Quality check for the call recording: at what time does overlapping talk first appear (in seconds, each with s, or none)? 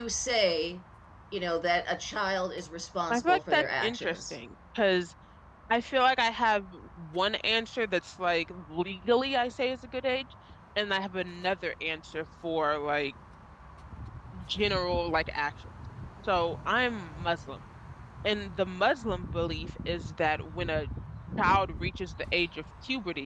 3.1 s